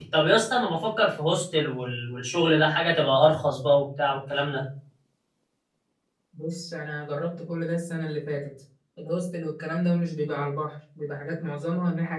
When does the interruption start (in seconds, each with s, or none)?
none